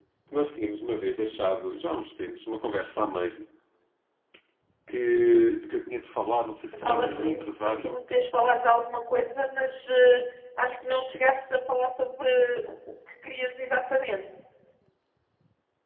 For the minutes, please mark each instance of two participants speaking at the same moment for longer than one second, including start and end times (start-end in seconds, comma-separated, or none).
6.7-8.0